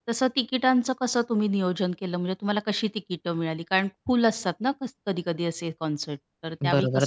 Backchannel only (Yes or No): No